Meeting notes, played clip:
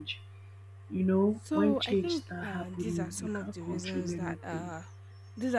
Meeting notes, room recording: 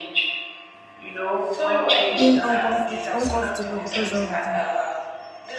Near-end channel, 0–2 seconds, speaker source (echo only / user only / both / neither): echo only